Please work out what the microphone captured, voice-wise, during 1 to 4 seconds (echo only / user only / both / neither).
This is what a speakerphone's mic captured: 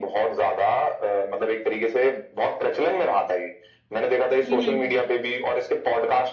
echo only